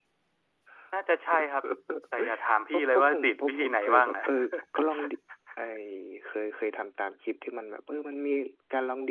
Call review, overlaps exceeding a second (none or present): present